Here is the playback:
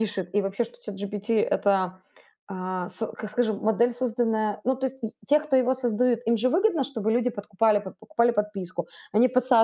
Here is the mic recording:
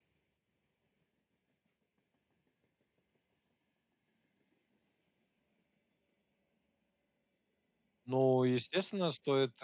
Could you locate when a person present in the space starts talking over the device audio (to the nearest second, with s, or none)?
8 s